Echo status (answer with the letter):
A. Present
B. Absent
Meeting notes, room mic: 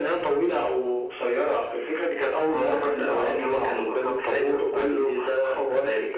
A